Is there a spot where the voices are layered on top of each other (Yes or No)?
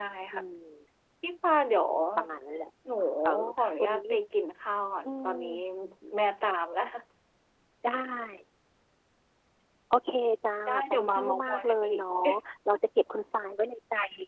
Yes